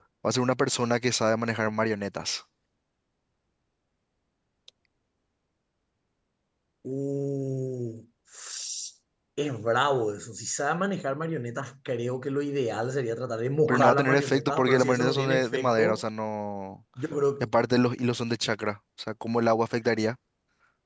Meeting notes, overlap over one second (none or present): present